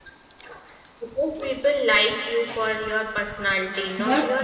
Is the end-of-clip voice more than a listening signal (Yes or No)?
Yes